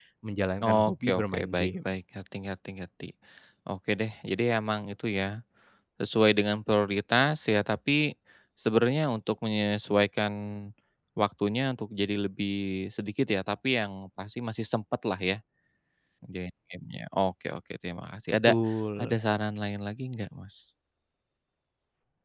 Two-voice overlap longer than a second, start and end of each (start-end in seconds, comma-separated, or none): 0.6-2.0